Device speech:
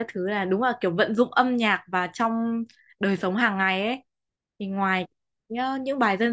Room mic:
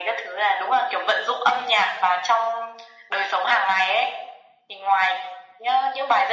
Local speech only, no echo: none

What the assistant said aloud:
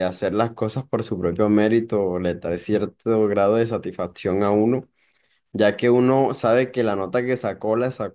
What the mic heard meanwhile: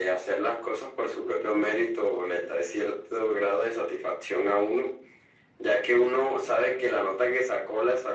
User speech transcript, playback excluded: none

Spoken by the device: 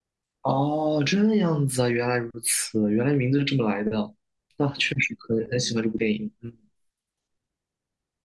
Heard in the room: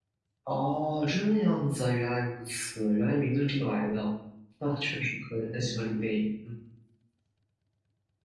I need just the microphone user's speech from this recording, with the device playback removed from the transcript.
none

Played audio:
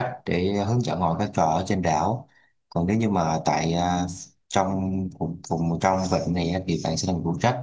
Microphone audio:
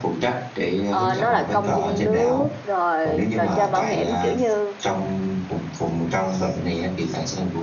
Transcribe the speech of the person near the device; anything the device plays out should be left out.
Ờ, nó là công viên nước, rồi trò chơi mạo hiểm, kiểu như

